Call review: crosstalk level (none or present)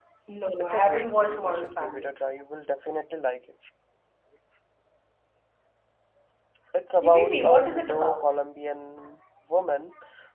present